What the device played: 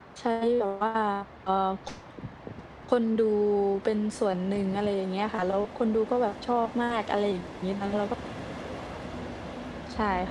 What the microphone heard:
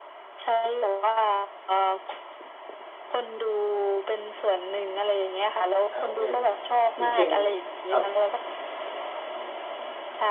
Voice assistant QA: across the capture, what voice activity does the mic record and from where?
both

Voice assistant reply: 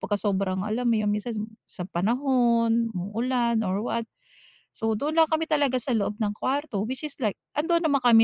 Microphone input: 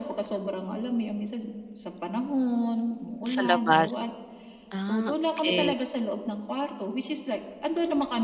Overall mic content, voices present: both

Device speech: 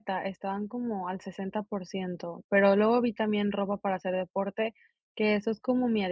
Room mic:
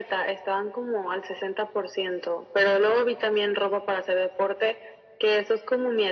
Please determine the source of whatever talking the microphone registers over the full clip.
echo only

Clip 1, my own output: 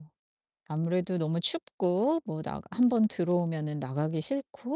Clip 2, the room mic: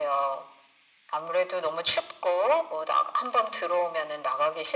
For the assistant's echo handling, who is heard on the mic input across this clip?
echo only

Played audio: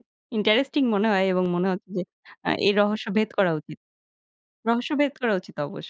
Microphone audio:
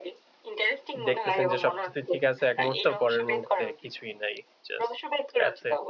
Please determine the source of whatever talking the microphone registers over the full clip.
both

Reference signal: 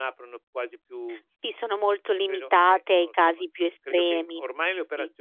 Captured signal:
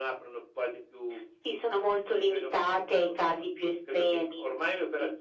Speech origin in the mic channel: echo only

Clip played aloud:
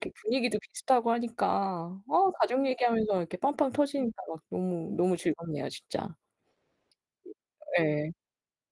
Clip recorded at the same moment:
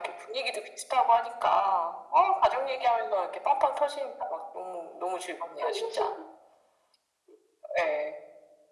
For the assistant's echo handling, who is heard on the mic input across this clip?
both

